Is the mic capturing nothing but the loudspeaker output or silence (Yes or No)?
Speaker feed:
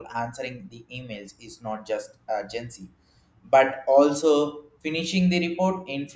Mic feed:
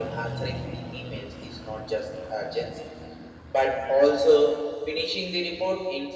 Yes